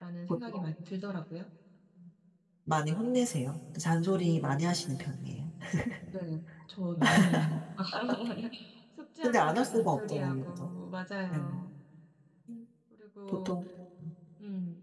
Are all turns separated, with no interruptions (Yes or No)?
No